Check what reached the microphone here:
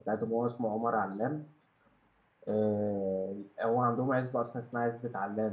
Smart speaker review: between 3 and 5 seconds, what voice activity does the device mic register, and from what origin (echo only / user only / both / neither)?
user only